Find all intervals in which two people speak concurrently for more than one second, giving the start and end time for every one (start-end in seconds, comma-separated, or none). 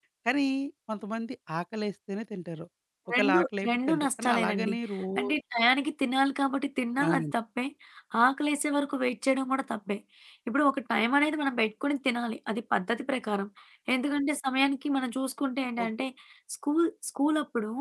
3.1-4.7